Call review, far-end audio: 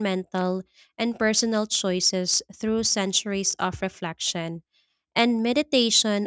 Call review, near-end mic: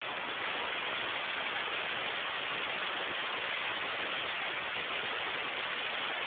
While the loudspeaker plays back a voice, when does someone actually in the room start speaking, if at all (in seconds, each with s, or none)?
none